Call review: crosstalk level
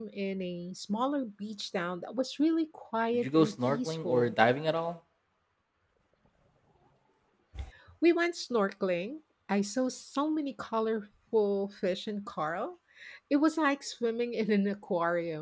present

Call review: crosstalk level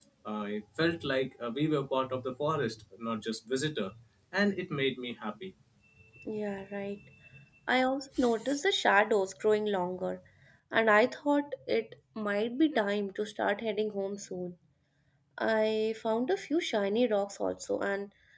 none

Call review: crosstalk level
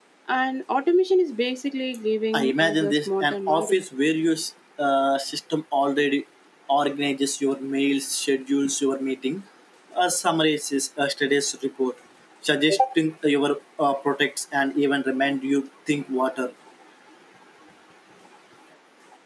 present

